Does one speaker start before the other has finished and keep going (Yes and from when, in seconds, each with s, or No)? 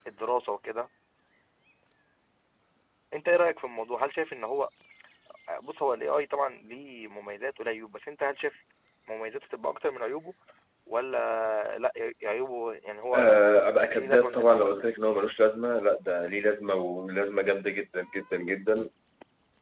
Yes, from 13.1 s